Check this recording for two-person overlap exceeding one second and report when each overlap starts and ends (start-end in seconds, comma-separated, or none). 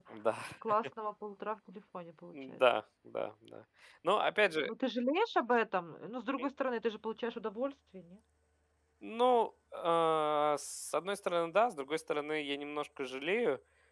none